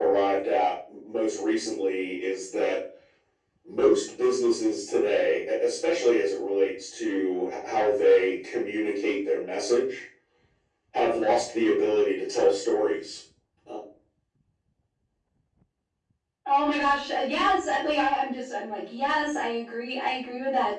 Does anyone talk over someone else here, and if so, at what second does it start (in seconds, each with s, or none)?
none